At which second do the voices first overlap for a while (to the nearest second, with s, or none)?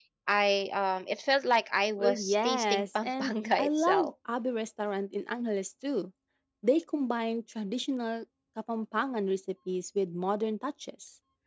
2 s